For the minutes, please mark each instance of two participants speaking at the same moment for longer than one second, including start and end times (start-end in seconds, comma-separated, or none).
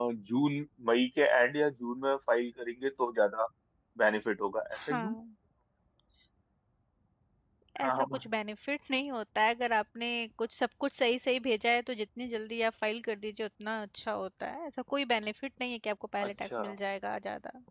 none